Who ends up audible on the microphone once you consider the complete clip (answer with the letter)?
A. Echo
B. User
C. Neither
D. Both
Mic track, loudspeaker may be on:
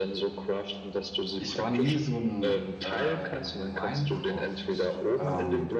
D